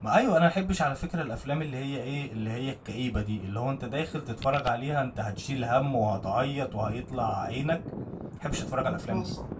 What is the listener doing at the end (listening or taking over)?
taking over